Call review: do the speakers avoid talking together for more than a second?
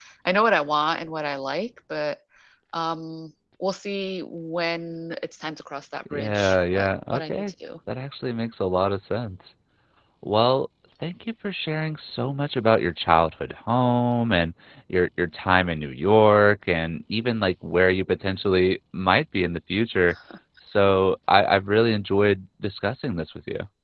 No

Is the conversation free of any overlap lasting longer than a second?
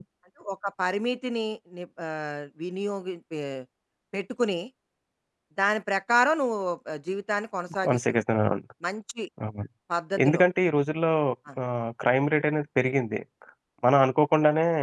Yes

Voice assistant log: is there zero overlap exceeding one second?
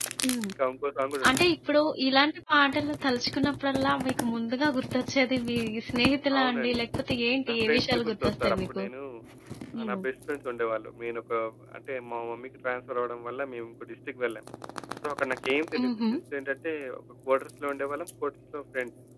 No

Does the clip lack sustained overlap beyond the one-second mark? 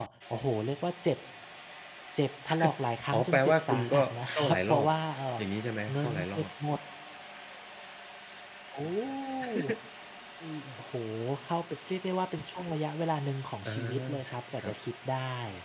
No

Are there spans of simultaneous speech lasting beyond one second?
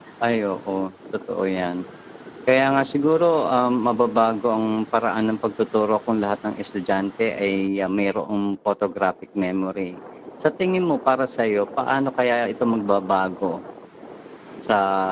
No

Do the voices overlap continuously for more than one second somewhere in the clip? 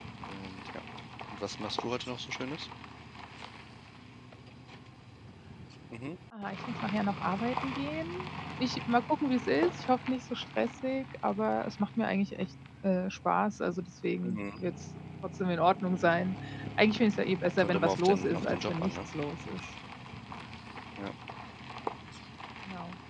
Yes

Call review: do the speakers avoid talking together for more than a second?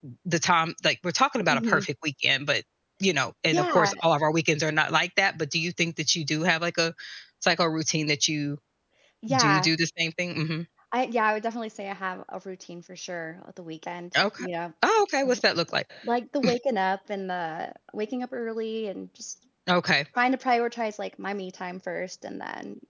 Yes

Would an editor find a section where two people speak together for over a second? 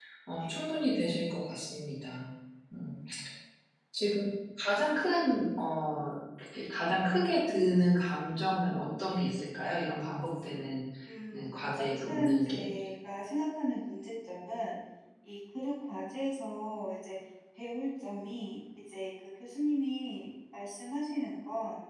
Yes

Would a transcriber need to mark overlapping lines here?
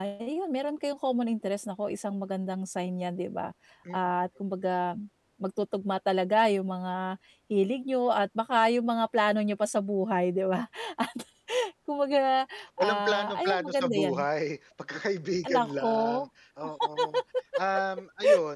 Yes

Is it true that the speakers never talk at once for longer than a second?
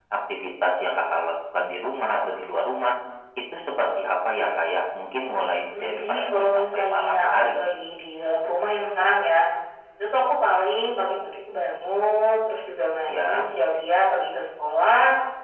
No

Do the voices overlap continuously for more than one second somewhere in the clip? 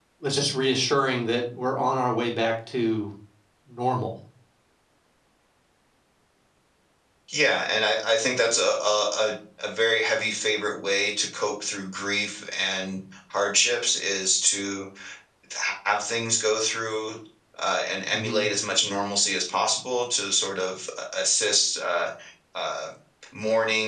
No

